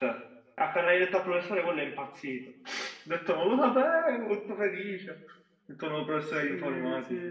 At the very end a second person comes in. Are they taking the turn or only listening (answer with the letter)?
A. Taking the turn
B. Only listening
A